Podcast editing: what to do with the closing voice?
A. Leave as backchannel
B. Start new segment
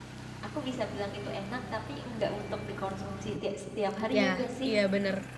B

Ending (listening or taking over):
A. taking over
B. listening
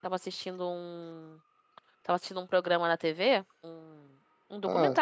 B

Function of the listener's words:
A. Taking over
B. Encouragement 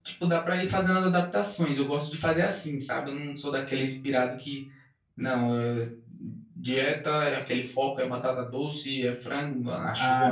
A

